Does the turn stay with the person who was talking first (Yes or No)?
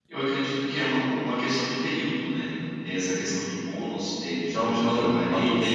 No